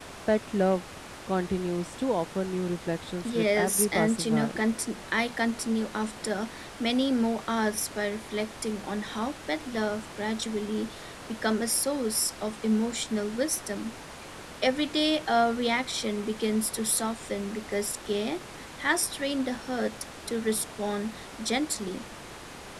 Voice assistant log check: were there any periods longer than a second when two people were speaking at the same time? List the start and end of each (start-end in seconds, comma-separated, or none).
3.2-4.5